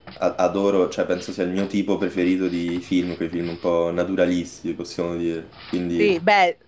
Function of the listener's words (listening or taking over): taking over